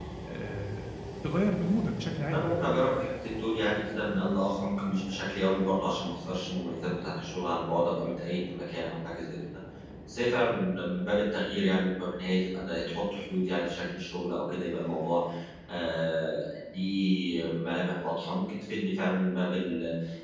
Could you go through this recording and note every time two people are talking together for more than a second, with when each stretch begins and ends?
none

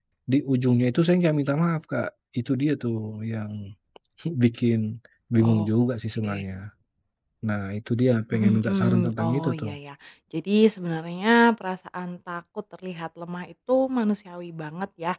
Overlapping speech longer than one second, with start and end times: 8.3-9.7

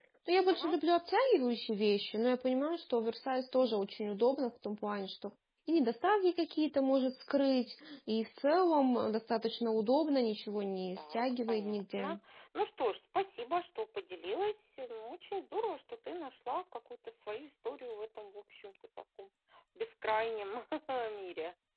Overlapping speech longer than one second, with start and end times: 10.9-12.2

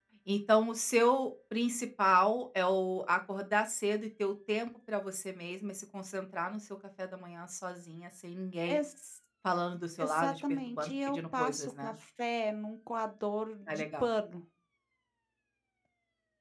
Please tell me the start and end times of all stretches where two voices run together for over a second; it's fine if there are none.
10.0-11.9

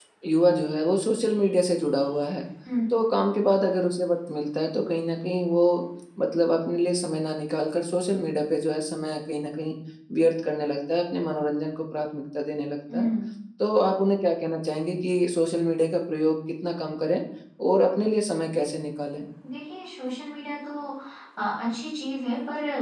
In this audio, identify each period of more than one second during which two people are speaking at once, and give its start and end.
none

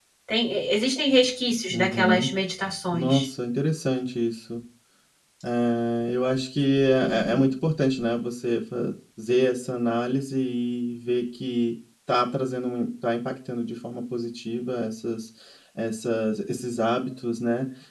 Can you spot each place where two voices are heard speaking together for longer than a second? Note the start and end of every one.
none

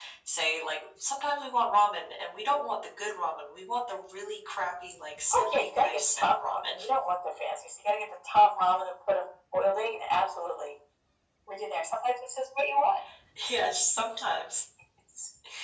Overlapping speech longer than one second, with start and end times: 5.3-6.8

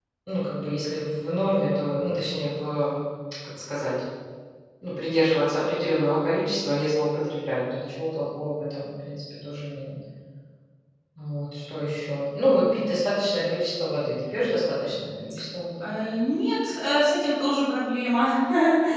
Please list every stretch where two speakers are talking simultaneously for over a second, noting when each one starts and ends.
none

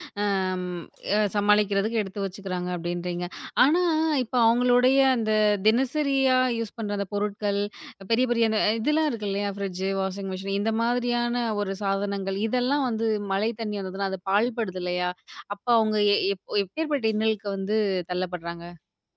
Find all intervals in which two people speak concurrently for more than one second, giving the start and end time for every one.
none

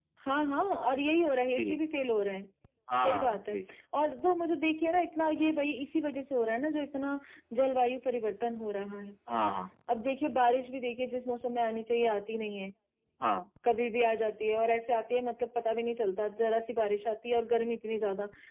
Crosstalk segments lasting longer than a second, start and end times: none

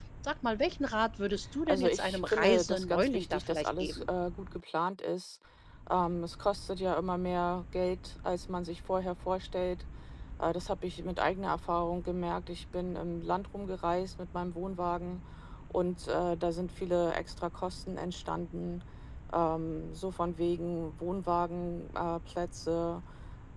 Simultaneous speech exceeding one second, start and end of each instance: 1.7-4.1

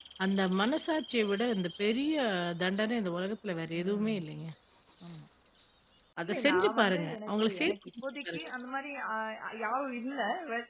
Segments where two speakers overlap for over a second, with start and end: 6.2-7.8

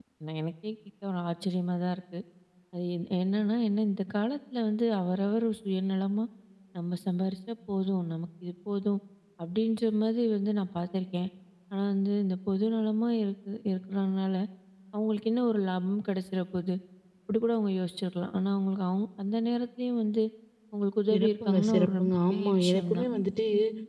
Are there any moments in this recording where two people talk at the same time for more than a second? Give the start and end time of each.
21.1-23.0

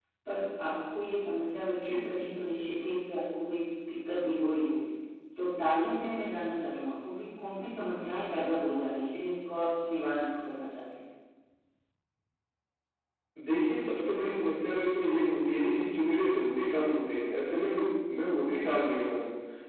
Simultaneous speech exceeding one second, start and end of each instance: none

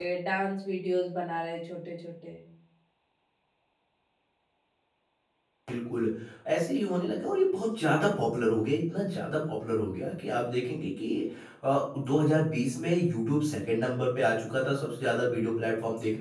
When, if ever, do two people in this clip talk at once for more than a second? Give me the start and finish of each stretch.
none

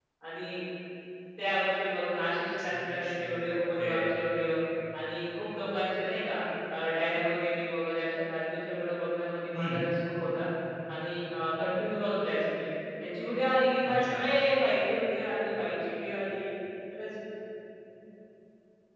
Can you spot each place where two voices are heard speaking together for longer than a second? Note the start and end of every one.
2.6-4.1

